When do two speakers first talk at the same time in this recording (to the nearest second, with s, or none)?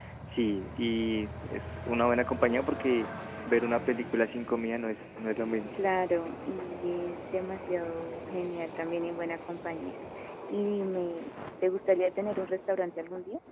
none